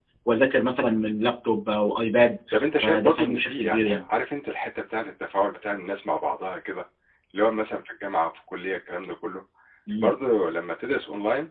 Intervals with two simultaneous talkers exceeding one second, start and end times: 2.8-4.1

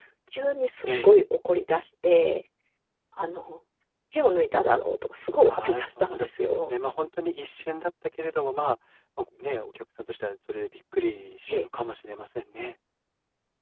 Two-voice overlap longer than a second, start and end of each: 5.5-6.7

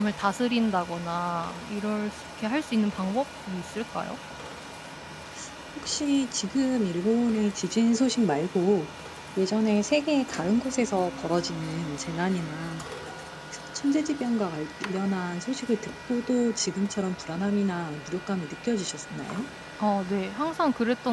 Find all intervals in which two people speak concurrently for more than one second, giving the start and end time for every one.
none

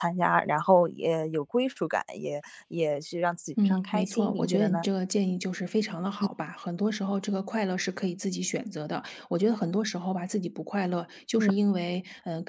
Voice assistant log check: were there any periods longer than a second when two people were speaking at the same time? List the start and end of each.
3.6-4.9

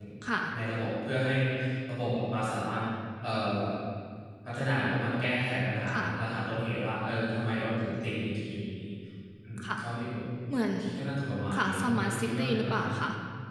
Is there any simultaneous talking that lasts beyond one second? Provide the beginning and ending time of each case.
11.6-12.8

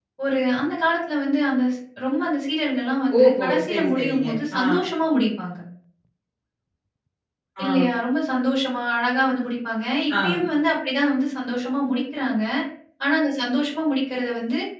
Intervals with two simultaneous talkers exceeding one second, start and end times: 3.2-4.6

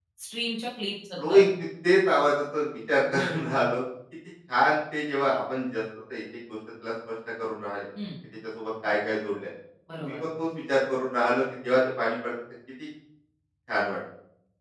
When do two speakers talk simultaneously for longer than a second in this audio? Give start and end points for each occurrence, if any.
none

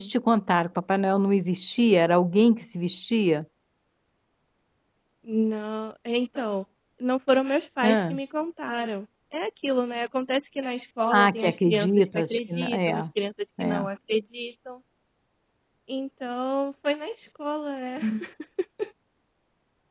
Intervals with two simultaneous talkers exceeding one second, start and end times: 11.1-12.9

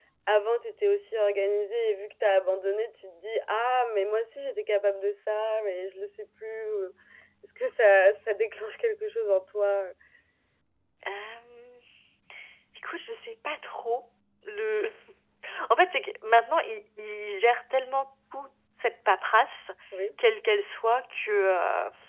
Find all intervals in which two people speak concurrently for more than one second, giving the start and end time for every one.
none

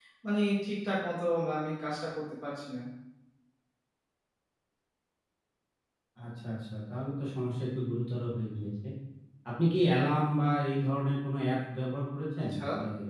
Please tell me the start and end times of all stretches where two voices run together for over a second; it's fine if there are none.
none

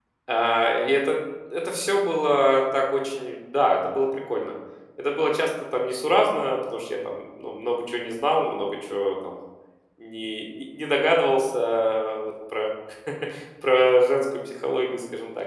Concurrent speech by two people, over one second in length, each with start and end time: none

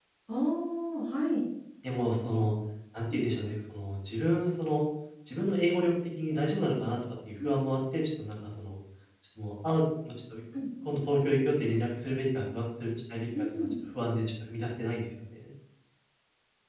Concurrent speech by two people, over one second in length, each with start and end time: none

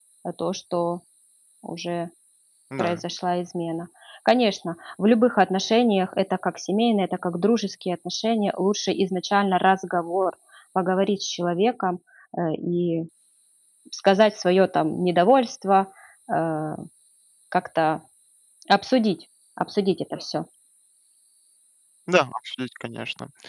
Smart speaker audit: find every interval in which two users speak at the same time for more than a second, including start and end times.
none

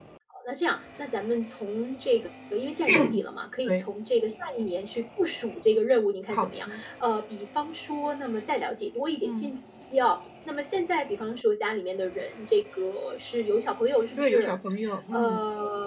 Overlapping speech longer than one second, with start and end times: none

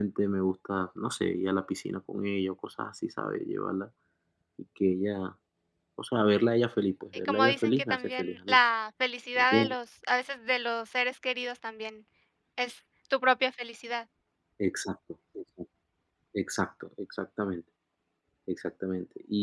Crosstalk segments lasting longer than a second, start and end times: 7.2-8.6

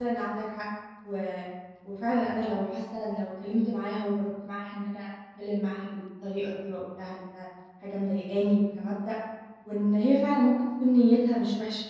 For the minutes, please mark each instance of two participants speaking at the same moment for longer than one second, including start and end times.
none

